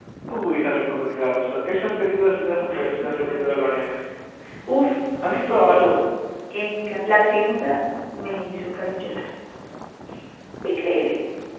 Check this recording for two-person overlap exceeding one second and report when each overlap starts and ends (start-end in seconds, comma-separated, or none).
2.6-3.8